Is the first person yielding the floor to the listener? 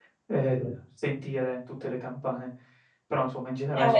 No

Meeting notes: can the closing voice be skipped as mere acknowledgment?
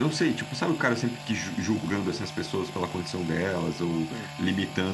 Yes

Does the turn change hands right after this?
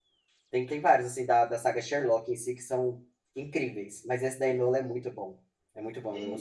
Yes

